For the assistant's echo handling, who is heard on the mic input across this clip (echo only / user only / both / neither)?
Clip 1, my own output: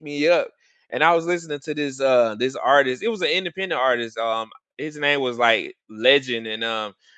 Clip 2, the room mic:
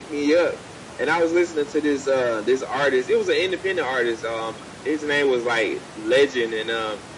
echo only